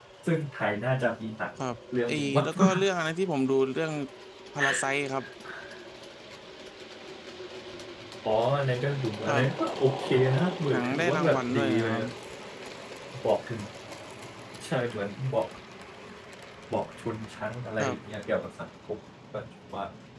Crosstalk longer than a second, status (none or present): present